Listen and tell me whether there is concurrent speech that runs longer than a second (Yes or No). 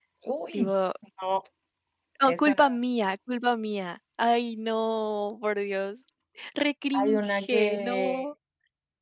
Yes